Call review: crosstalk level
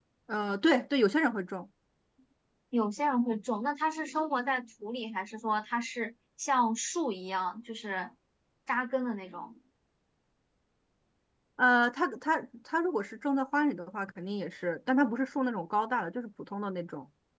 none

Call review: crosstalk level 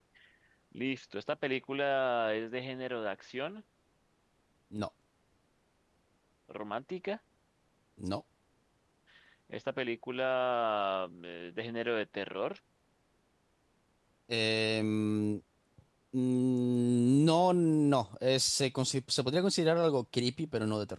none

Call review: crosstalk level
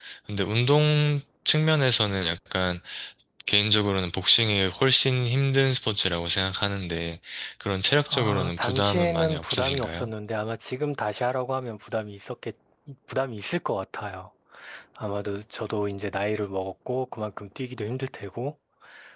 present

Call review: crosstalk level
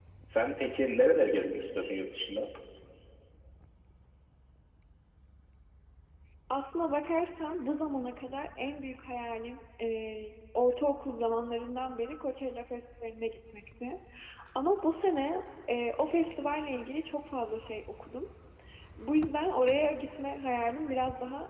none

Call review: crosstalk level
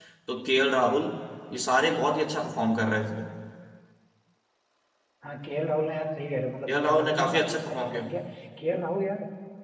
present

